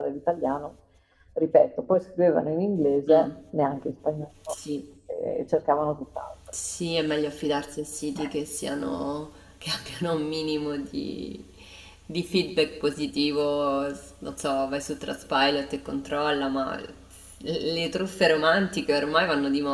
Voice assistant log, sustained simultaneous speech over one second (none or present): none